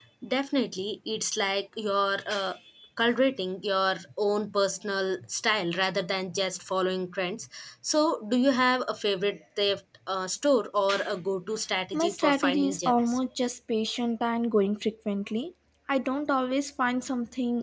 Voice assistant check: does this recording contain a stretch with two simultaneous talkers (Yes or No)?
Yes